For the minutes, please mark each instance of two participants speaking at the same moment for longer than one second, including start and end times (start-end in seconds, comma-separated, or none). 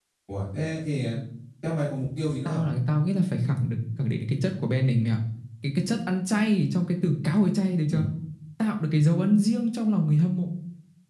none